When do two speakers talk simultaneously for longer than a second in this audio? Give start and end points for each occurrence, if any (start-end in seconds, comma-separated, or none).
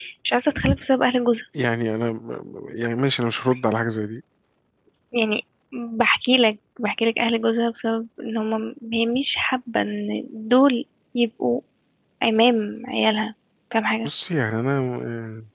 none